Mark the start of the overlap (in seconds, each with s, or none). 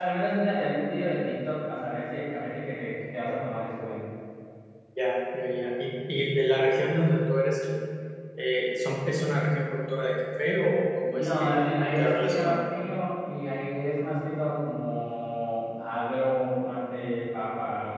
11.2 s